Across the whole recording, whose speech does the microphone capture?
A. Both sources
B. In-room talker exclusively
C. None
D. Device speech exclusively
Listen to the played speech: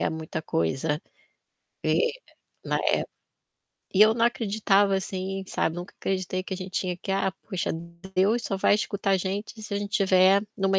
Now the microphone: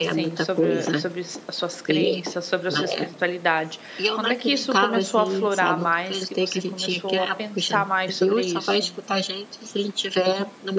A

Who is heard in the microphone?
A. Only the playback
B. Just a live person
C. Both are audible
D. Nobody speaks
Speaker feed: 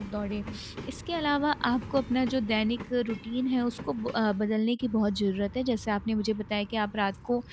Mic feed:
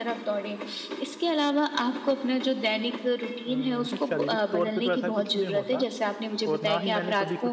C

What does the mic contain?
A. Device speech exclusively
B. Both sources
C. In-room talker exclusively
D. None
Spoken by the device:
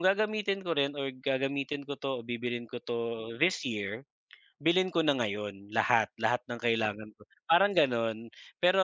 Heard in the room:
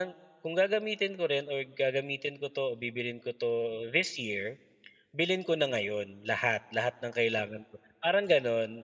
A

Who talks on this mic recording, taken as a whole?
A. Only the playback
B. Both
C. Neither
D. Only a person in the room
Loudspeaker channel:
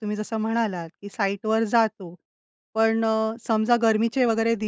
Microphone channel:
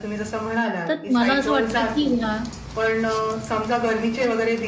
B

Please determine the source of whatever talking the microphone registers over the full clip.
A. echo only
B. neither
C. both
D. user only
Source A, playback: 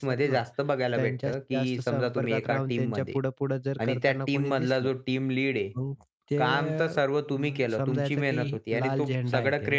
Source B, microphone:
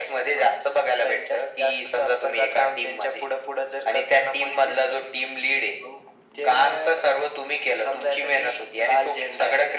A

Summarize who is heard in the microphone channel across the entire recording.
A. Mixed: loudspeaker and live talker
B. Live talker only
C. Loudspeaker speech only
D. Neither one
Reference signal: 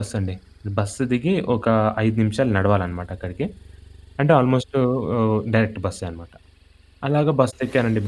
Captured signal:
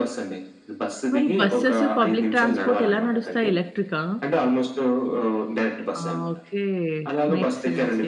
A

